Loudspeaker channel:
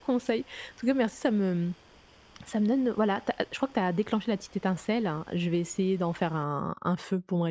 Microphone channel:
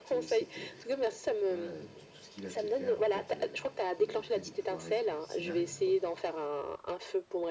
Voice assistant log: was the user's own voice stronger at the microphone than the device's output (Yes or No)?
No